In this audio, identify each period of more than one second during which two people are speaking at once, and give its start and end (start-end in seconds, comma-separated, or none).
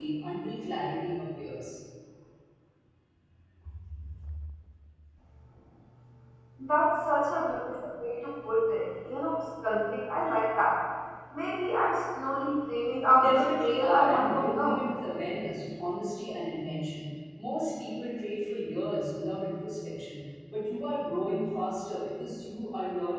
13.1-14.8